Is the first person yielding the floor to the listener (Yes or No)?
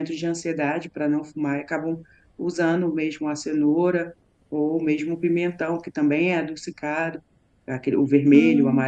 No